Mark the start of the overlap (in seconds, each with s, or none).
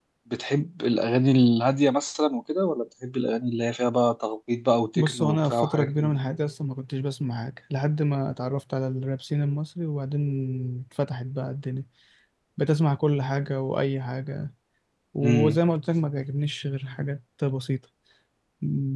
5.0 s